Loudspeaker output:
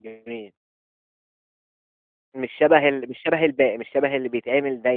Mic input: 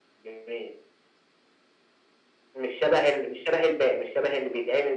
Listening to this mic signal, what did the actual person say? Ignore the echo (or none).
none